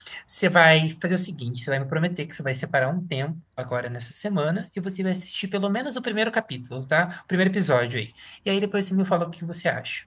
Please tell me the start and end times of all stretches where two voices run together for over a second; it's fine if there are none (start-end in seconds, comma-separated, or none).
none